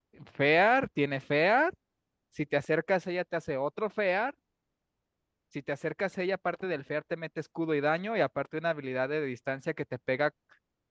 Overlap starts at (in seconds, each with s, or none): none